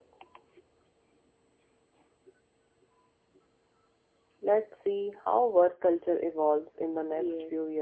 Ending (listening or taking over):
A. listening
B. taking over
B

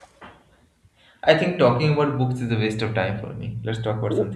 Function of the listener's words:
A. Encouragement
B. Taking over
B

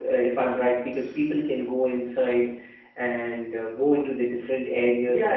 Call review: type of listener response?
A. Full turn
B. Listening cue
A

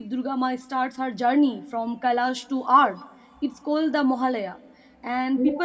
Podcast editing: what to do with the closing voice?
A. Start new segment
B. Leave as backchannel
B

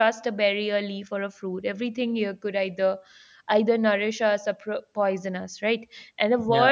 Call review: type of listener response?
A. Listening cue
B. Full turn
A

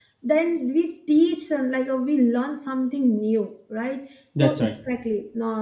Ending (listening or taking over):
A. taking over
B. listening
B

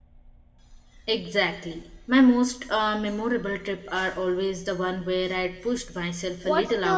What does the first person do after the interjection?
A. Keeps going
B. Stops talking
B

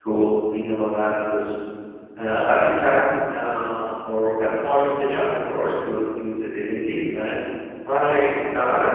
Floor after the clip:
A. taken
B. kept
B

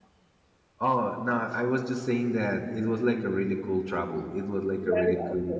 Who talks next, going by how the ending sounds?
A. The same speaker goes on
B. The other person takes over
B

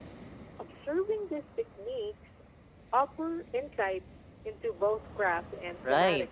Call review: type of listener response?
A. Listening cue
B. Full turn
B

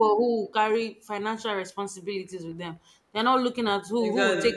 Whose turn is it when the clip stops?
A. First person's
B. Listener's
A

